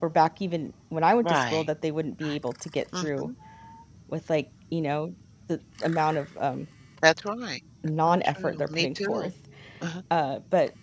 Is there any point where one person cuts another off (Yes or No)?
Yes